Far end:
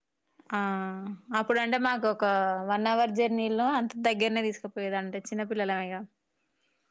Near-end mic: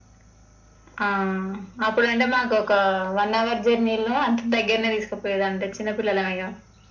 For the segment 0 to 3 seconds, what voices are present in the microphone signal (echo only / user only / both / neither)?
echo only